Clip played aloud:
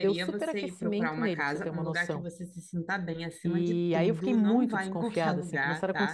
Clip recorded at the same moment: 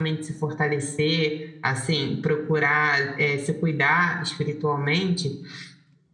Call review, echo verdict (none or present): none